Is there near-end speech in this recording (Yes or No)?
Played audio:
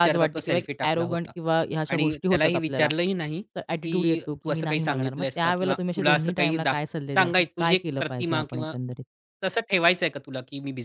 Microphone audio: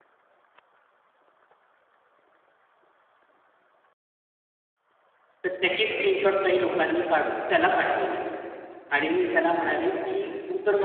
Yes